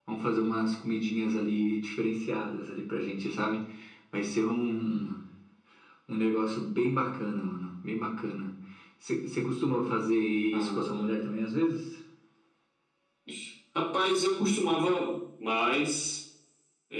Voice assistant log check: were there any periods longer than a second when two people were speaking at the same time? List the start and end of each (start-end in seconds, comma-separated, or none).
none